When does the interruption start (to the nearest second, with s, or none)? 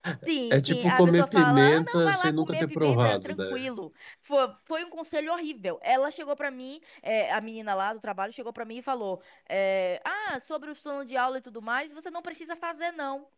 1 s